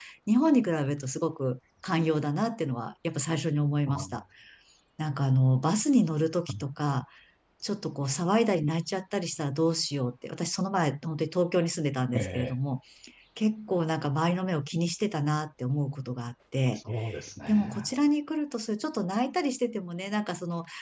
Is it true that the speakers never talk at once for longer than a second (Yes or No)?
Yes